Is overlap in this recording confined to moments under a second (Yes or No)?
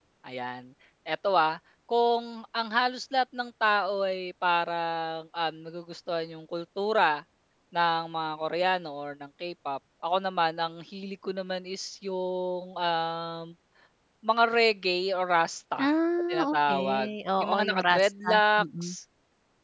No